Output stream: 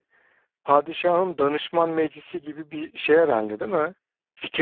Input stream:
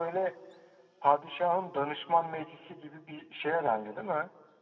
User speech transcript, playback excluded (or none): none